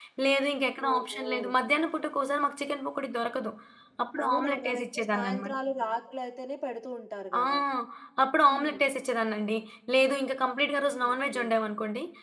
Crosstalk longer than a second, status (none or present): present